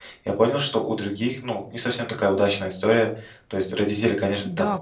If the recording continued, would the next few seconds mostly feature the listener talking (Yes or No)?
Yes